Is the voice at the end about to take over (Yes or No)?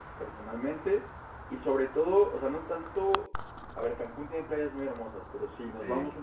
No